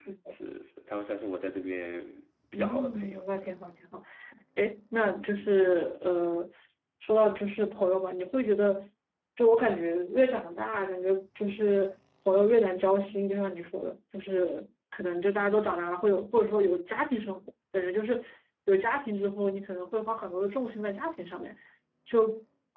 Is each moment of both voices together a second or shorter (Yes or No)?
No